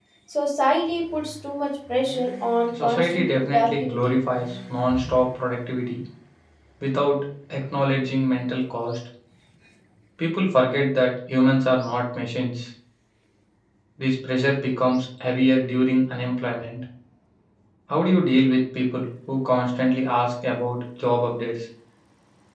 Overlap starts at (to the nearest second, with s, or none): 3 s